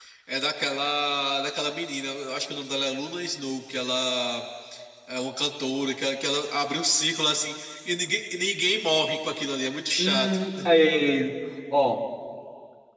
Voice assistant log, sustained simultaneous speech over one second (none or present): none